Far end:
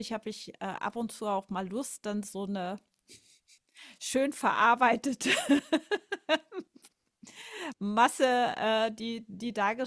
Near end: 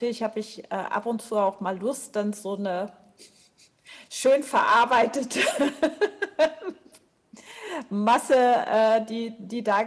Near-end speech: none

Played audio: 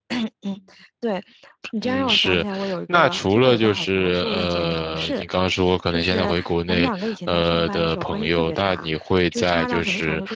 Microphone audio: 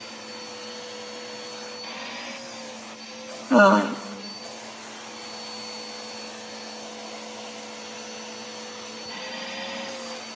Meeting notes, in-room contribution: present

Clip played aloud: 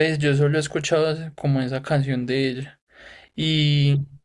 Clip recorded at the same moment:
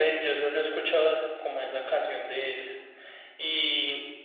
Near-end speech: none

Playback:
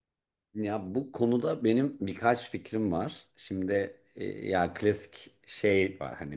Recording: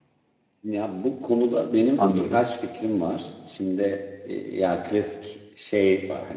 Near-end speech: present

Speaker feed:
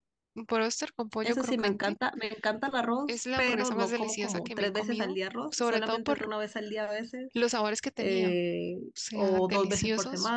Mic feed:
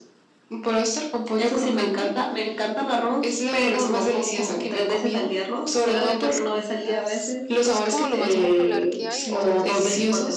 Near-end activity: present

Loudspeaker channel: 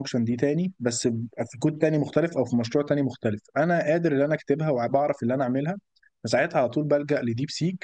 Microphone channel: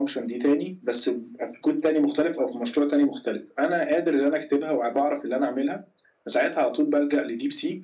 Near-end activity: none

